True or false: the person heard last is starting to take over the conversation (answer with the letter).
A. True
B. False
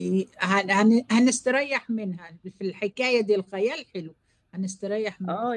A